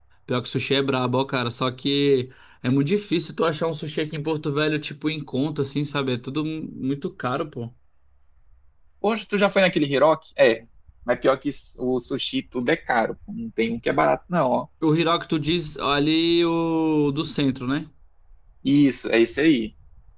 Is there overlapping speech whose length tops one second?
No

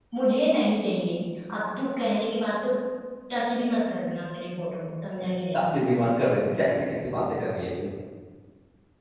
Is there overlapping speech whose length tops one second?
No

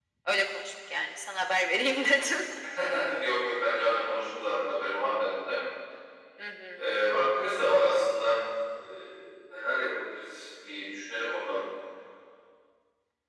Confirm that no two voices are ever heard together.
Yes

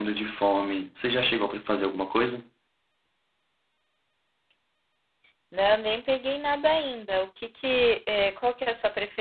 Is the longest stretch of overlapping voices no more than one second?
Yes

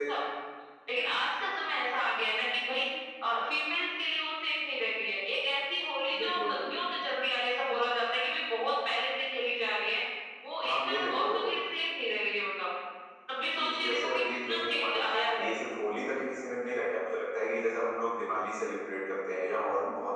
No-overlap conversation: No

